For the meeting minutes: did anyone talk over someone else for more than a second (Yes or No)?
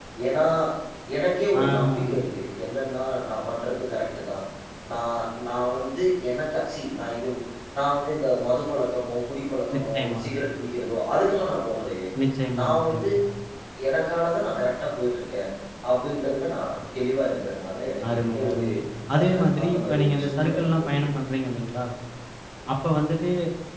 Yes